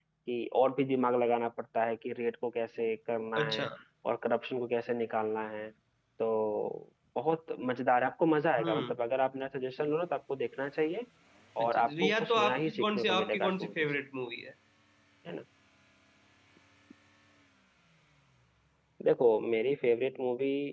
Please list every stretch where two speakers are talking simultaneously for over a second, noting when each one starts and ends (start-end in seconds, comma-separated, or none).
11.6-13.9